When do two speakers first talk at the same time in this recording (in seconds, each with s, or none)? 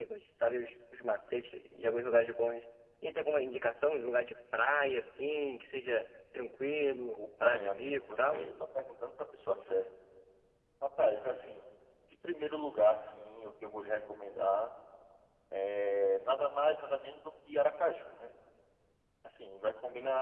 7.2 s